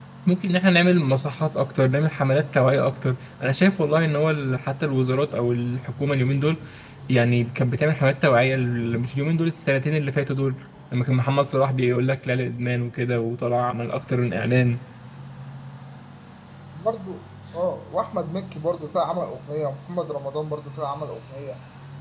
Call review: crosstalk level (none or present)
none